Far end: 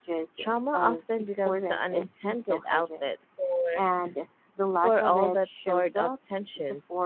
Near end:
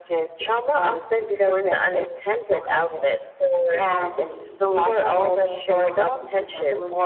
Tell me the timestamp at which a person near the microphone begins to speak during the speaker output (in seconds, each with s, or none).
3.6 s